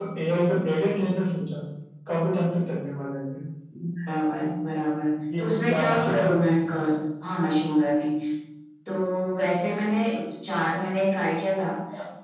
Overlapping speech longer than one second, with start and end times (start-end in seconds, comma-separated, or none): 5.4-6.8